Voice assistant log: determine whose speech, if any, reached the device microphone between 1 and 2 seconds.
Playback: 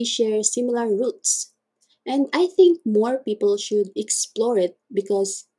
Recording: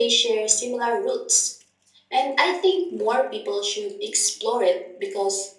echo only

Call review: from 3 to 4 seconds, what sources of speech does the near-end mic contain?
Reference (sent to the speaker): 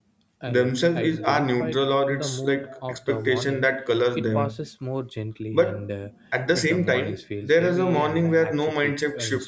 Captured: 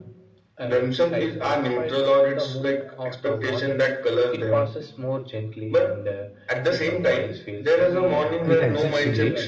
echo only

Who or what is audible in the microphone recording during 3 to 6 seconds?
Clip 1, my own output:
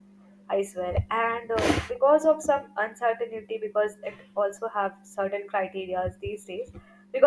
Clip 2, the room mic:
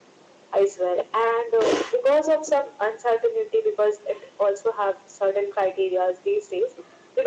echo only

